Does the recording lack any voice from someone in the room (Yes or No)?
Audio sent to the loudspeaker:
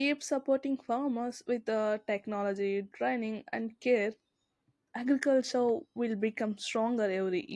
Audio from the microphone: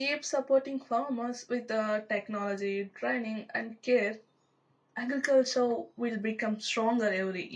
Yes